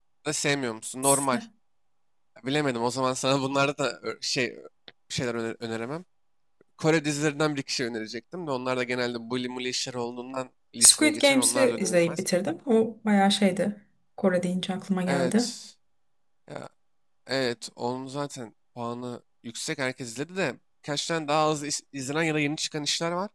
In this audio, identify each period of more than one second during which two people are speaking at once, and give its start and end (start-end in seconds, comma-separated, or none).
10.8-12.2